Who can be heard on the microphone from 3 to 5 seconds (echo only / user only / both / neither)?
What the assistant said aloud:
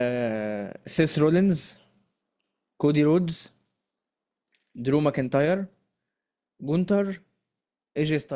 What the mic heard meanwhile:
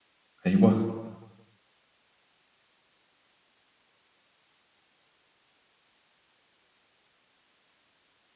neither